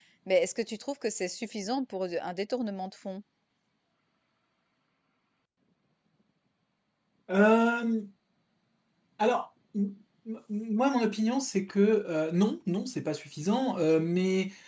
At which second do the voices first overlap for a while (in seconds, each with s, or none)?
none